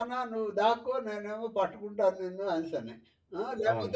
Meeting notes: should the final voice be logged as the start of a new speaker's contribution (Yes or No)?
No